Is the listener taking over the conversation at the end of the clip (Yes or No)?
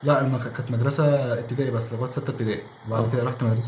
No